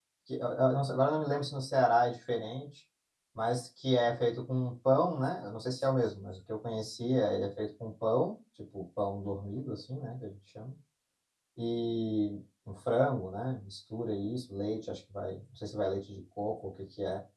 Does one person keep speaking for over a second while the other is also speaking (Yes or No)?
No